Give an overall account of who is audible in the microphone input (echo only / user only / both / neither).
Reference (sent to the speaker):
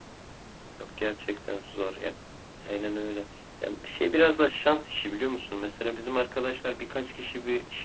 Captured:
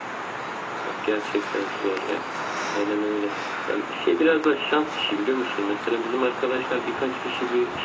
echo only